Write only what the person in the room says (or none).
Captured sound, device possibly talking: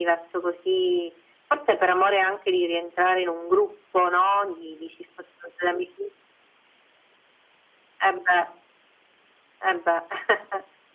none